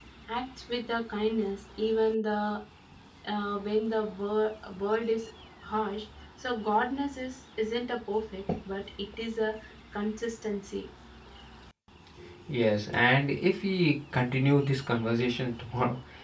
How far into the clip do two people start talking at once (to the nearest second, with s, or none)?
none